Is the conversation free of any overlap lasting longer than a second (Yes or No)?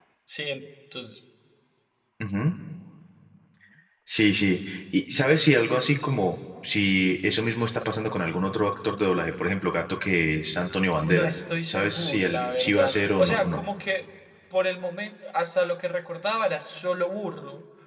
No